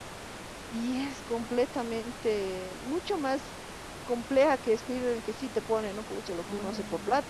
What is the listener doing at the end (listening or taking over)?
listening